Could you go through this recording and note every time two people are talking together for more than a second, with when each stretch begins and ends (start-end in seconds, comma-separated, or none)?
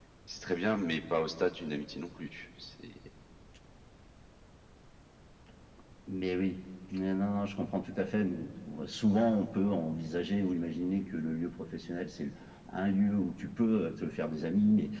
none